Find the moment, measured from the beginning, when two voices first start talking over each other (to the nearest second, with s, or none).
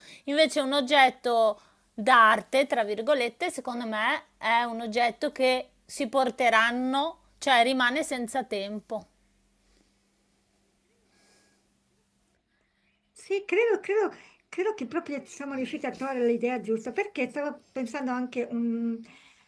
none